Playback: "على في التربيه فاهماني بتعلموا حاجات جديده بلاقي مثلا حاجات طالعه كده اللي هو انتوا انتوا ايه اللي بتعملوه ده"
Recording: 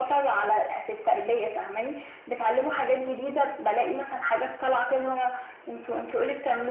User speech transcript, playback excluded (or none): none